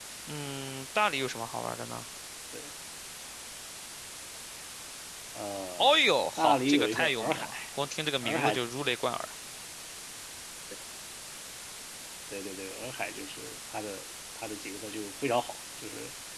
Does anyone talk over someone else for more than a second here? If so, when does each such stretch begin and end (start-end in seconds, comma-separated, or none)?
5.8-7.5